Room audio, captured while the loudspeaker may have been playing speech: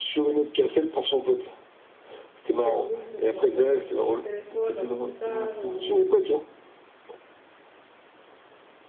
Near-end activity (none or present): present